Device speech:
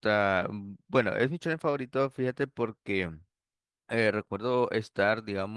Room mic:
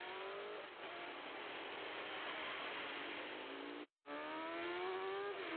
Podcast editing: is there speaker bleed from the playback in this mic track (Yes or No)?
No